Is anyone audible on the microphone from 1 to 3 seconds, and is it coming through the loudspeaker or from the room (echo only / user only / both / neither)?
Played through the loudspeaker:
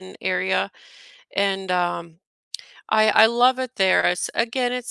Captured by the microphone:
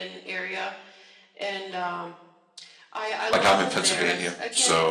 echo only